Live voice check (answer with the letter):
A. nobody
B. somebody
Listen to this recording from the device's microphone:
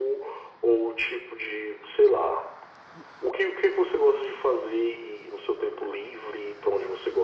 A